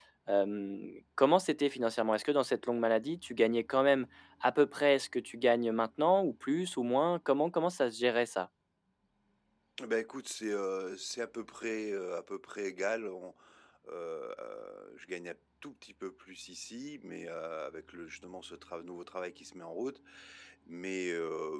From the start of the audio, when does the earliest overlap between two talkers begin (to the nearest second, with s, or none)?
none